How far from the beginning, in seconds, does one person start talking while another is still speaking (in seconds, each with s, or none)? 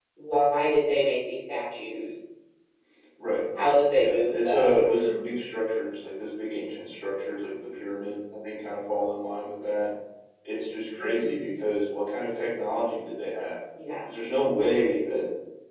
3.9 s